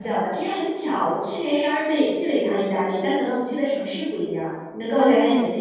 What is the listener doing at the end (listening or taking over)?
taking over